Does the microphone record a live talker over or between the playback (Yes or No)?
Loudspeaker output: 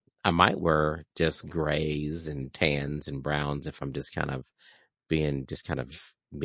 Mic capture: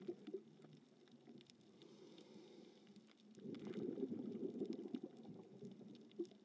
No